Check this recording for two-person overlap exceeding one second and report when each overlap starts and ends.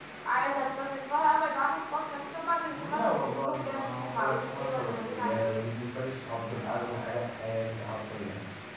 2.7-5.6

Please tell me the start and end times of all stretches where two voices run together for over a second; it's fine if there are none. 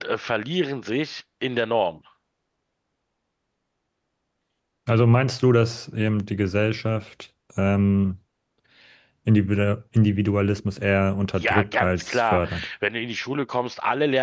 11.4-12.7

